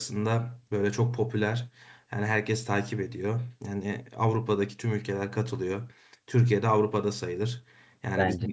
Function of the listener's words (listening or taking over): listening